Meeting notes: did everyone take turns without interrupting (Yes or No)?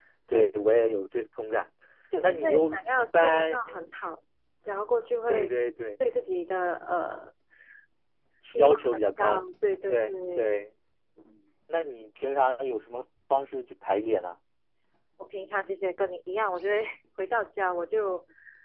No